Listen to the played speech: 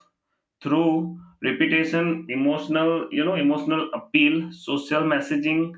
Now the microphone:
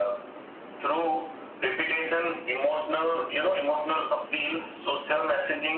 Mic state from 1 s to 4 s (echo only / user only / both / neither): echo only